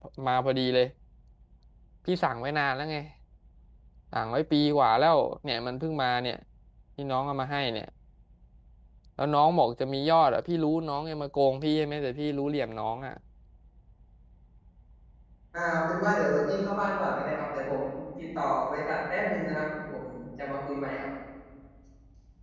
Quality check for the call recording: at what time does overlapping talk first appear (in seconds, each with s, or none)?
none